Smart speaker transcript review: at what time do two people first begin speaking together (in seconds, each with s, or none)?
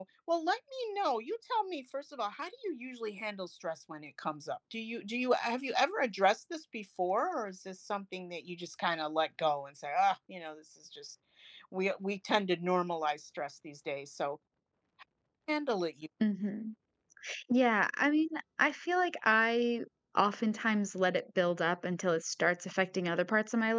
none